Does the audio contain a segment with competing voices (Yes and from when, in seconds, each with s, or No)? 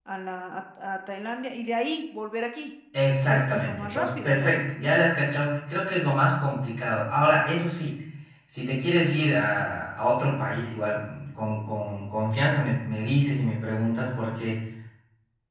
Yes, from 3.2 s